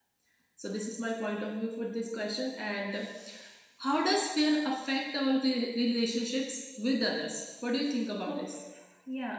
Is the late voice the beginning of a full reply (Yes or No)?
Yes